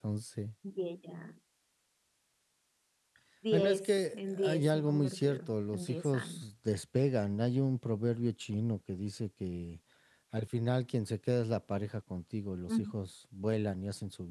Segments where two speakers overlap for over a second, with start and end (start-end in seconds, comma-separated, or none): 3.5-6.4